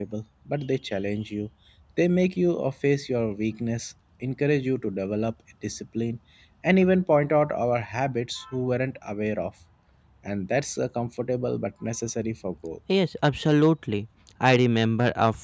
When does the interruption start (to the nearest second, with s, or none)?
none